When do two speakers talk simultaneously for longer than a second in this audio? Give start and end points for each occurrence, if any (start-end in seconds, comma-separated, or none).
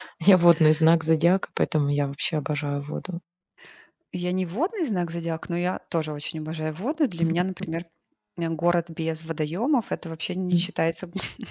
none